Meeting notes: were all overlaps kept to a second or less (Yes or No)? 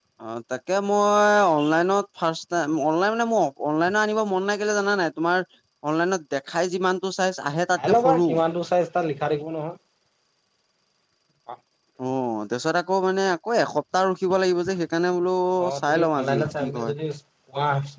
No